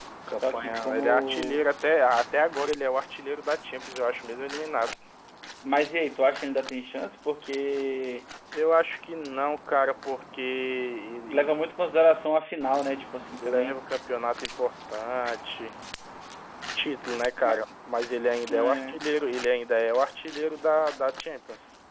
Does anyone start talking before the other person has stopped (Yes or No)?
Yes